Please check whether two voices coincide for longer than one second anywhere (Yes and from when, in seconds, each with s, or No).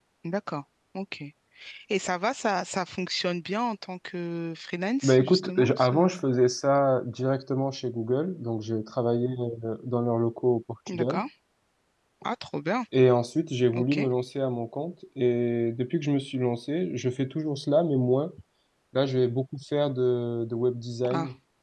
Yes, from 5.0 s